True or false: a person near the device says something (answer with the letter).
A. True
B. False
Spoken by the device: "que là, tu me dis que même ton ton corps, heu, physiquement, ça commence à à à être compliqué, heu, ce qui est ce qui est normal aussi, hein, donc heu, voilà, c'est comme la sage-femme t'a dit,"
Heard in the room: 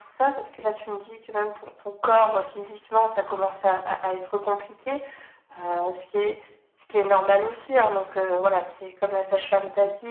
B